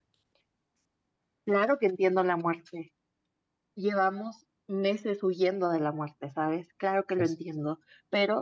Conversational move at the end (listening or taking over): listening